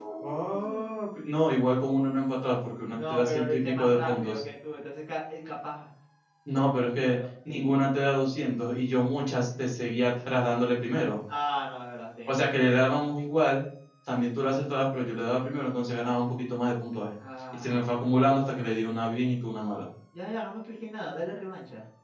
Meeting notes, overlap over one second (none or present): present